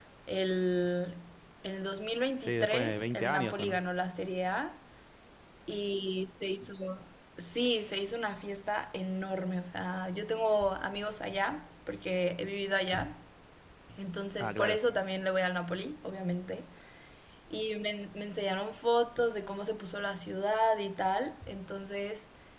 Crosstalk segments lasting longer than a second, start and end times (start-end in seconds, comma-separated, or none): 2.4-3.8